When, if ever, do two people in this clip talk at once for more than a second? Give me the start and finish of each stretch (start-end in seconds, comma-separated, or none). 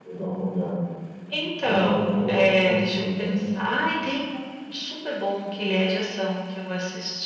1.6-3.5